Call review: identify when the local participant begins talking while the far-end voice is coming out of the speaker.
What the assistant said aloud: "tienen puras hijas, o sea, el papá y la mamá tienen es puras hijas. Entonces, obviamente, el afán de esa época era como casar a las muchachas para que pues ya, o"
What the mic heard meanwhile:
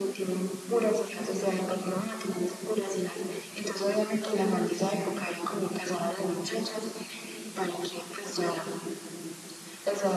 none

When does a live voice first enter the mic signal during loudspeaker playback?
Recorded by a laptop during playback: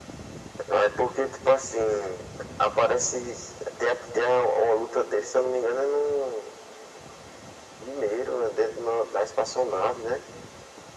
none

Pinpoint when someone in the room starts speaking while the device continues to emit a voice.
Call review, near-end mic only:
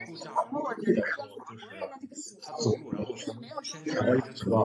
none

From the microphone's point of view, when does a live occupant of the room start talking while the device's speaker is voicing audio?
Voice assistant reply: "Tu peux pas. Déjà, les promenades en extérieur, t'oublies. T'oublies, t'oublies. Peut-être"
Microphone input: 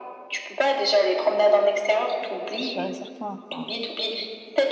2 s

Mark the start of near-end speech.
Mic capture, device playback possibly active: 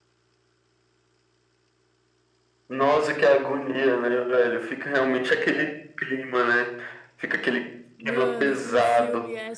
8 s

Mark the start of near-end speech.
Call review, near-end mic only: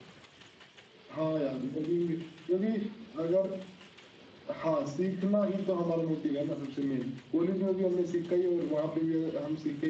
none

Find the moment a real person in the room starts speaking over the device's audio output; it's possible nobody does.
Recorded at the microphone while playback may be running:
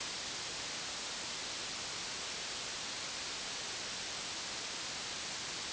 none

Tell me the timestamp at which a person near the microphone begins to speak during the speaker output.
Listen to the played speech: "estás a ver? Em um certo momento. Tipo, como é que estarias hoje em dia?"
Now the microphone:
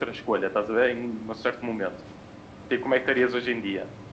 none

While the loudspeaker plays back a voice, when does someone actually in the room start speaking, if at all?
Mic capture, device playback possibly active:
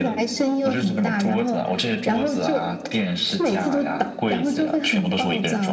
none

